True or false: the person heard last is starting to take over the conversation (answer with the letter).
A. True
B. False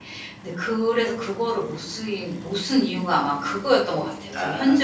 A